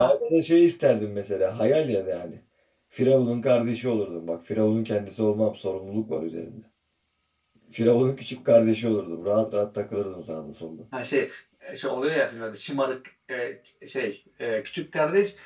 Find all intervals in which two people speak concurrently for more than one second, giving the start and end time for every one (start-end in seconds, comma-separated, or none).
none